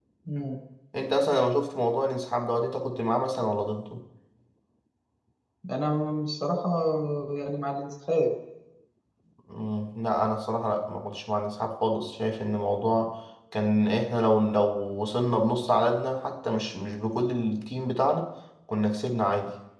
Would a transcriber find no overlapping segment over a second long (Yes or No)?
Yes